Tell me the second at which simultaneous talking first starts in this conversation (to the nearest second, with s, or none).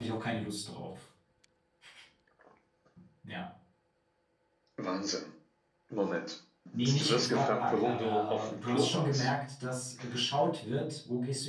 7 s